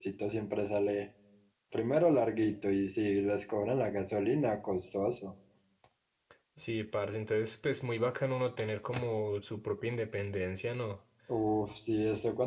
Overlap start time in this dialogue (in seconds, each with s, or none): none